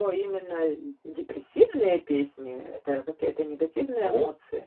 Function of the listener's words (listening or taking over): taking over